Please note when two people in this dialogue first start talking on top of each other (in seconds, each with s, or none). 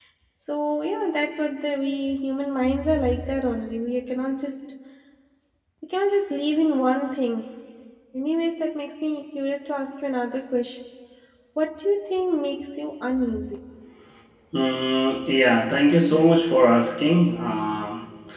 none